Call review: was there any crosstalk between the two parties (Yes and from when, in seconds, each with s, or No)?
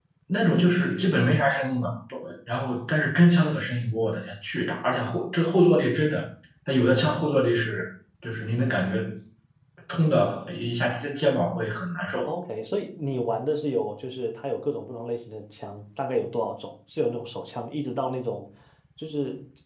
No